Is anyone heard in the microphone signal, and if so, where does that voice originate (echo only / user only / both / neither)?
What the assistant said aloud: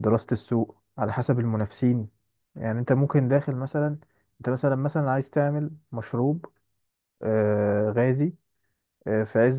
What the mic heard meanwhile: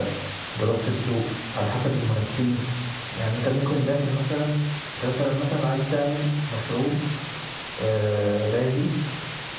echo only